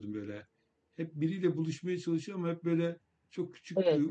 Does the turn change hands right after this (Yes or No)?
No